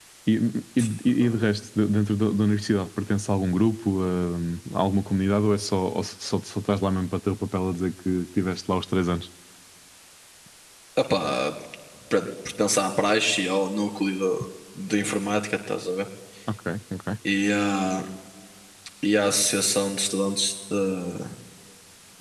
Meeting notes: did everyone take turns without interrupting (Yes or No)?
Yes